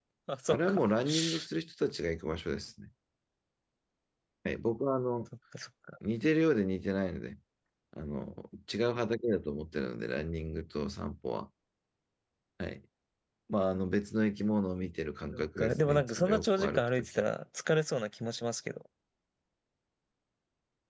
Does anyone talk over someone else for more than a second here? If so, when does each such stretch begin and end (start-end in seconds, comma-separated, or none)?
15.3-17.2